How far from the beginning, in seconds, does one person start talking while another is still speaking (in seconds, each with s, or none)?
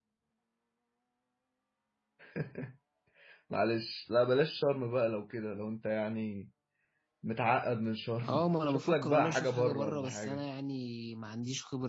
8.2 s